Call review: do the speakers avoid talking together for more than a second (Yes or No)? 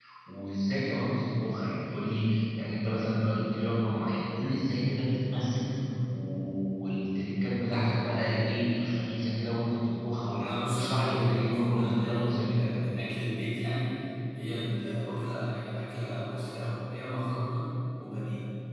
No